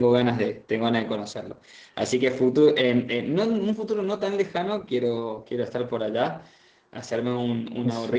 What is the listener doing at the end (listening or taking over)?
listening